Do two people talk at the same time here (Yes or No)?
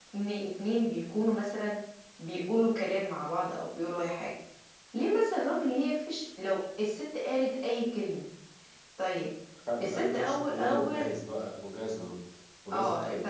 Yes